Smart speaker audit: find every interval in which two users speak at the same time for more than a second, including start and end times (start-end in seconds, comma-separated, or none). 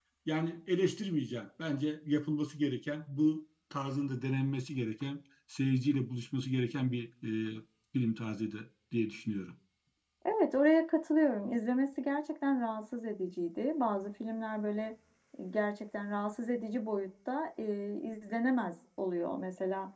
none